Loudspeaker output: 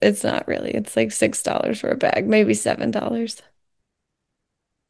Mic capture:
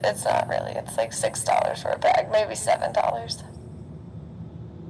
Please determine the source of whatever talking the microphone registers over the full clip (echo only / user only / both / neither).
echo only